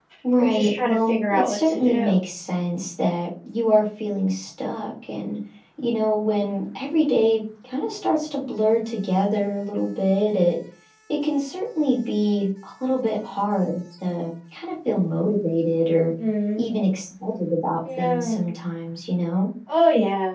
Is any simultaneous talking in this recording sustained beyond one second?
Yes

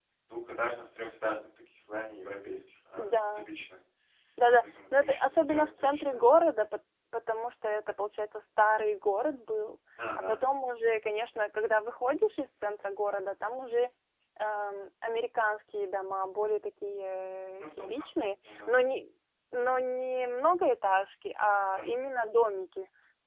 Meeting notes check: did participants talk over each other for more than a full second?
Yes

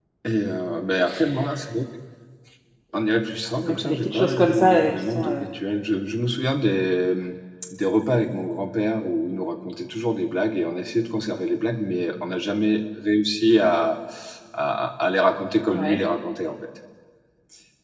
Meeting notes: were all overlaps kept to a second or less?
No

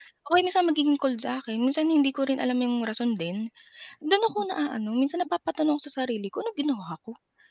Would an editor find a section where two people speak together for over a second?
No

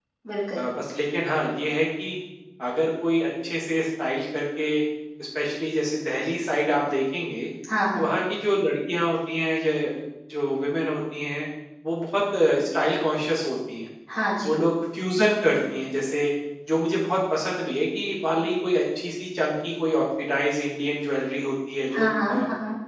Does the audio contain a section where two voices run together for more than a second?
No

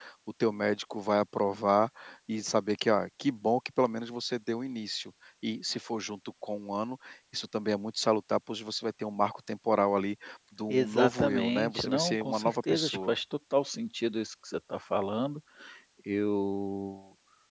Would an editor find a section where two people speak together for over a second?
Yes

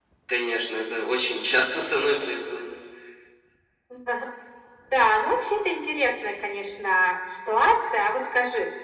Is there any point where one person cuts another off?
No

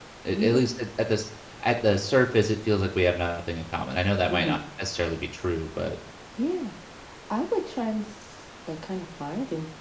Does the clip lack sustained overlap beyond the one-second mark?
Yes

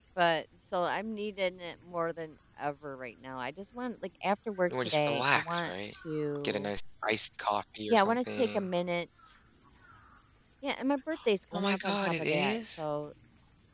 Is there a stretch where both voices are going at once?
Yes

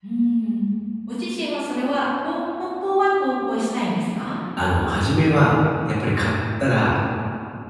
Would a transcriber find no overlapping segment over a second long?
Yes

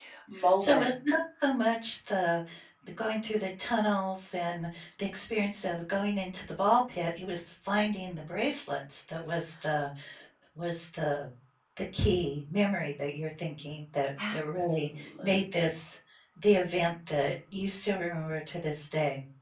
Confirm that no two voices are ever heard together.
No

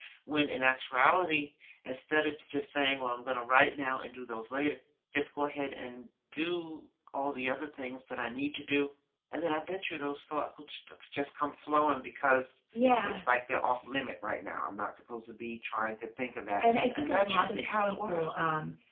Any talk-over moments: Yes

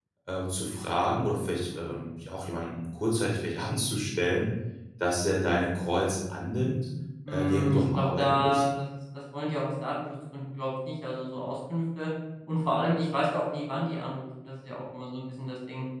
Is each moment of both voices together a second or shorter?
No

